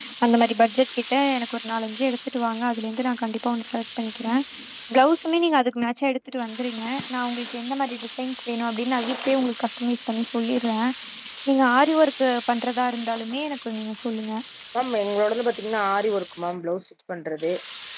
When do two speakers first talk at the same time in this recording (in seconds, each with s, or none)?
none